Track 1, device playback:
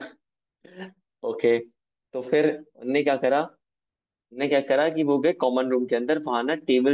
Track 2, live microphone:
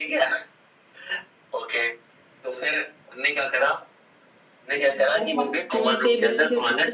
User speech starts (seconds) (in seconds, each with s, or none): 4.9 s